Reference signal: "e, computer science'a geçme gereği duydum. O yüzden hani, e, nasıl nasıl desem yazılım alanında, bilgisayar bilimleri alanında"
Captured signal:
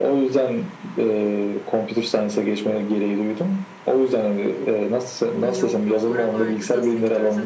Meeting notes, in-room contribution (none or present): present